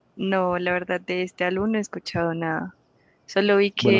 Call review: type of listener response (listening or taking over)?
listening